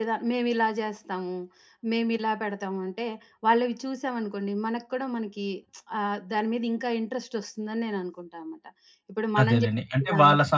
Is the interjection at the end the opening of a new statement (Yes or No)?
Yes